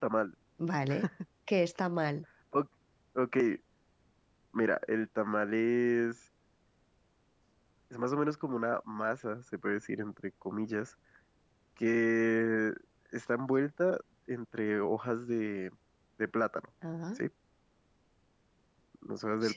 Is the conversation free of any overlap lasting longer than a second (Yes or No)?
Yes